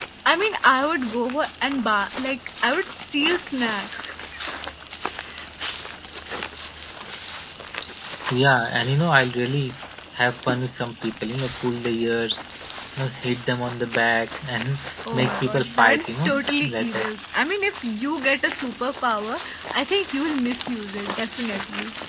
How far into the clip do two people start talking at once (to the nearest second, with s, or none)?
15 s